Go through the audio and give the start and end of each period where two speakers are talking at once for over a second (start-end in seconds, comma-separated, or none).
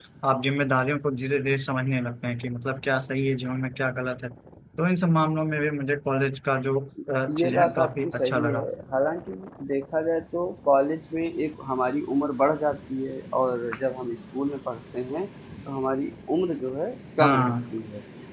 7.4-8.6